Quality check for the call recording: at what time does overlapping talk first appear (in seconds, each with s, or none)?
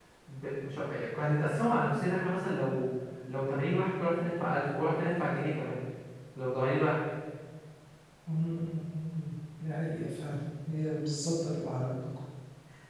none